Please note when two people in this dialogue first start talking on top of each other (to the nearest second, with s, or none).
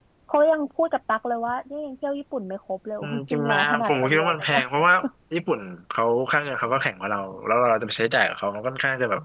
3 s